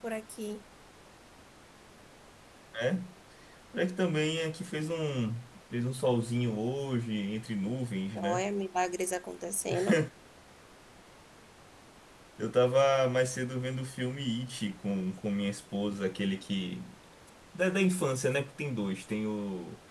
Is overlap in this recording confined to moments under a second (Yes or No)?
Yes